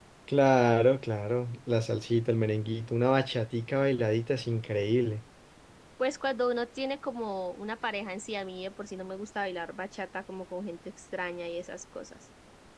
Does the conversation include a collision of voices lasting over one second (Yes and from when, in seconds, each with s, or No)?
No